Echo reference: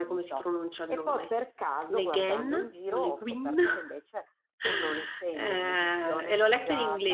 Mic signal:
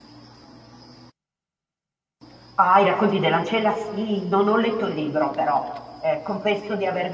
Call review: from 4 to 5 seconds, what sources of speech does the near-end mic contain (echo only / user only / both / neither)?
user only